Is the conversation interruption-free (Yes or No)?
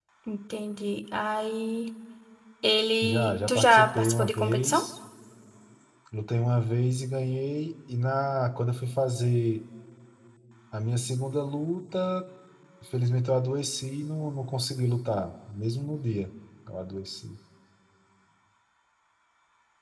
No